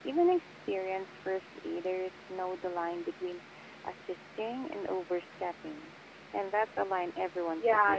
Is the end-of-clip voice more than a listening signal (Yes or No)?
Yes